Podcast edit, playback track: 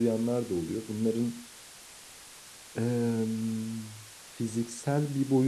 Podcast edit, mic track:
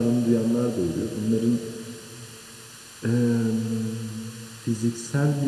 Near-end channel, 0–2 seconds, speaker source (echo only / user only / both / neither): echo only